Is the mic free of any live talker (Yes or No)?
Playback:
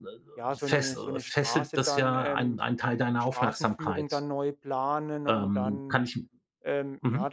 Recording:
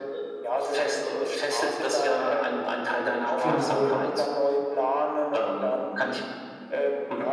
No